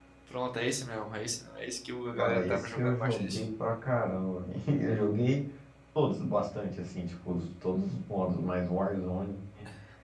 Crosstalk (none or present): present